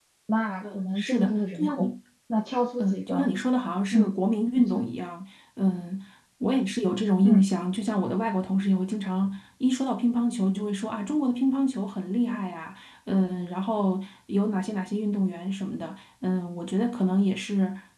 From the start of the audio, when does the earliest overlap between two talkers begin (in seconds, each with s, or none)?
0.6 s